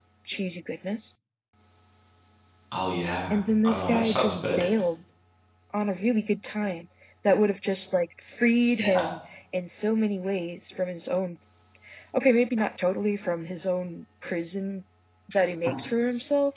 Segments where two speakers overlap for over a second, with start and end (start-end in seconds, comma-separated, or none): 3.3-4.6